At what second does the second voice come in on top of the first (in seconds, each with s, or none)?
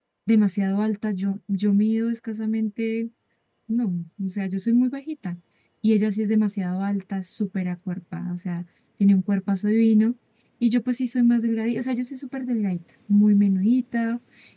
none